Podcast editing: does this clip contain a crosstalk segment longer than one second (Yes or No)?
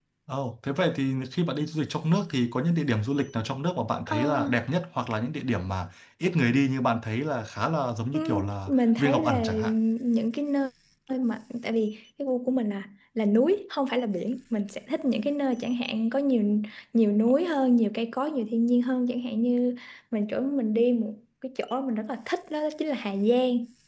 Yes